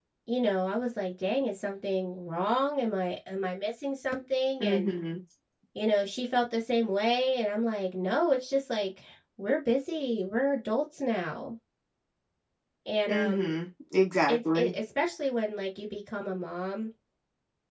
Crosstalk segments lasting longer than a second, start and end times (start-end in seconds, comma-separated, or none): none